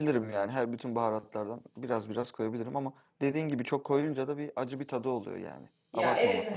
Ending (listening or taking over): taking over